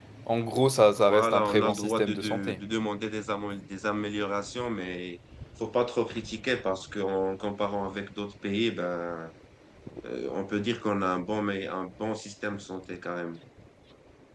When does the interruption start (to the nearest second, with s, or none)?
1 s